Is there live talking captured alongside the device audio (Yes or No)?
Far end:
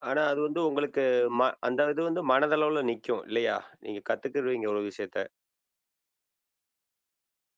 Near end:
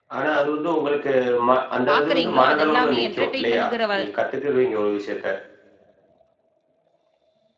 Yes